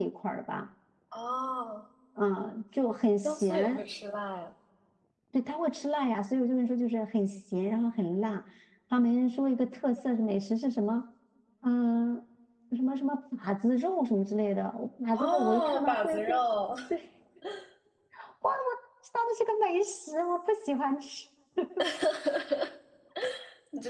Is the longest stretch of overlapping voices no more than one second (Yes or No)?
No